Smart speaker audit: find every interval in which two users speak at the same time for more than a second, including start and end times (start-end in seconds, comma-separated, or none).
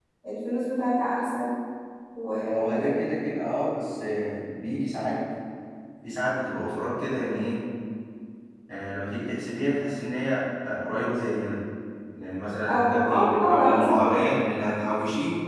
12.7-14.3